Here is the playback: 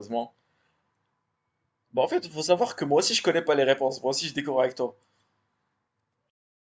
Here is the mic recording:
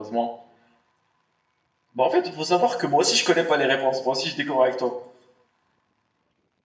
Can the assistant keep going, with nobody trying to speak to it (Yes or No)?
Yes